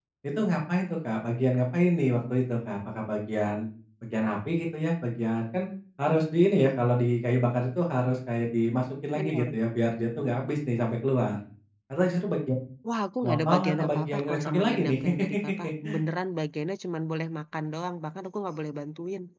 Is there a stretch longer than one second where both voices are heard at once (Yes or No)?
Yes